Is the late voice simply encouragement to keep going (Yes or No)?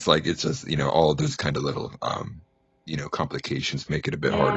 No